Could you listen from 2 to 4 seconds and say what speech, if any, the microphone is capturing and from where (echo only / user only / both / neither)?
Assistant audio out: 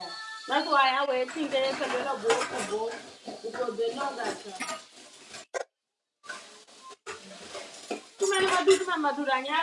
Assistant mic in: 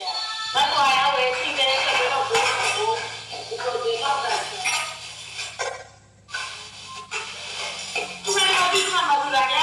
echo only